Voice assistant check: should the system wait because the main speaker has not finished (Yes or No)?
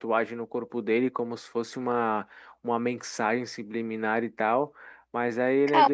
Yes